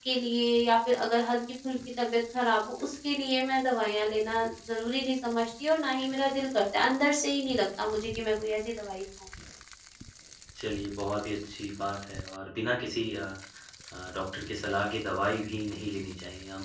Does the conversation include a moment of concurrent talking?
No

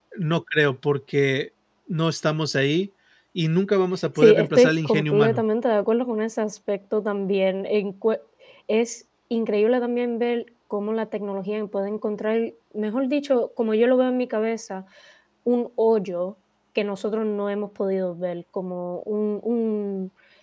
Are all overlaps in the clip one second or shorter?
No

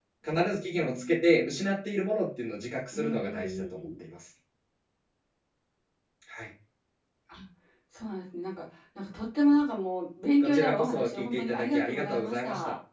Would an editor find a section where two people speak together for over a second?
Yes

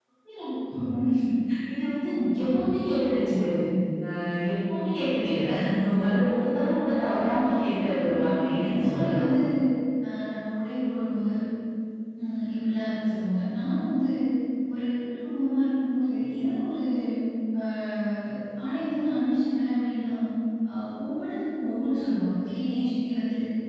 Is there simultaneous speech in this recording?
Yes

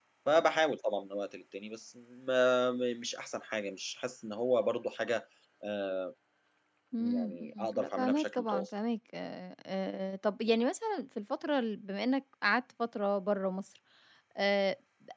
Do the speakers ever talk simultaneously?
Yes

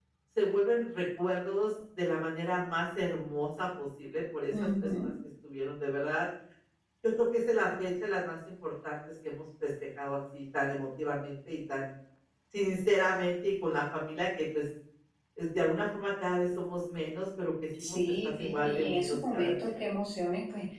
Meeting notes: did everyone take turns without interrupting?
No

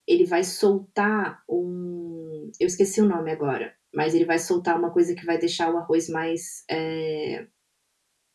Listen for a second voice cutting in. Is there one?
No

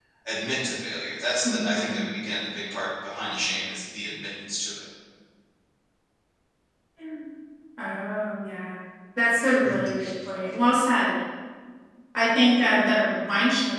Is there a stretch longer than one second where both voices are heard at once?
No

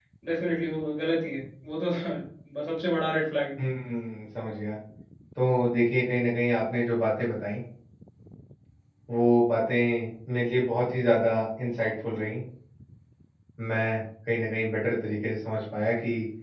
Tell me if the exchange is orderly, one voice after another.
Yes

